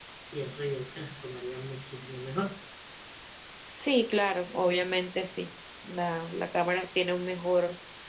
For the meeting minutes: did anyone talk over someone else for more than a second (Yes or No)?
No